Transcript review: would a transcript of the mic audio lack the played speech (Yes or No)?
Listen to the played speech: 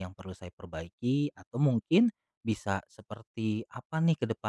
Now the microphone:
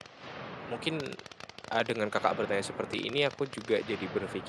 Yes